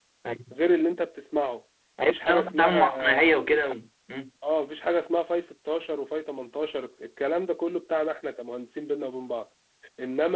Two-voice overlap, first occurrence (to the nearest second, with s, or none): 2 s